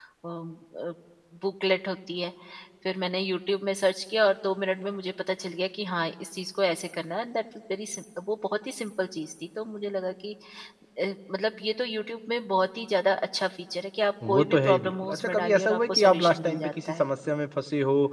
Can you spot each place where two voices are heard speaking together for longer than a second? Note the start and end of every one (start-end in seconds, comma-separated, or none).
14.3-17.1